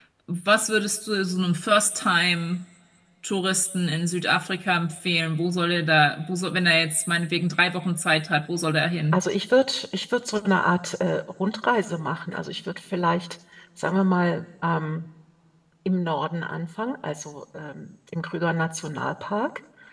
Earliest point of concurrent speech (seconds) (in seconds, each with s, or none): none